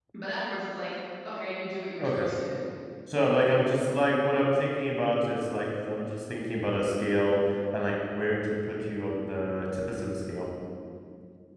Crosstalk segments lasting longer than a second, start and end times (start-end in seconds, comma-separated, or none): none